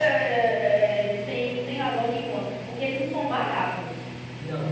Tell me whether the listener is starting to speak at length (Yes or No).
Yes